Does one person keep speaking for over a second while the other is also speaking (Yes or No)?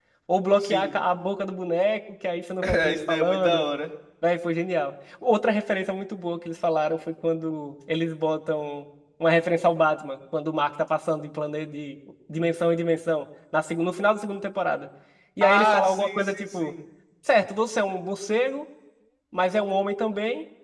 Yes